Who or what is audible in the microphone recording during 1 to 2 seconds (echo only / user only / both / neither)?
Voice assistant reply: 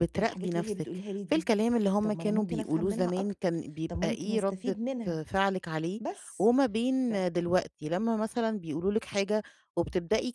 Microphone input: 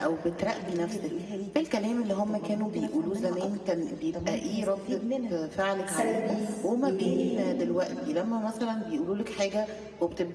echo only